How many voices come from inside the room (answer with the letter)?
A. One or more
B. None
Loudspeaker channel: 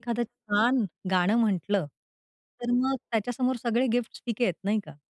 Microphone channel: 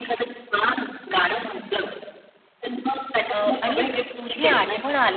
A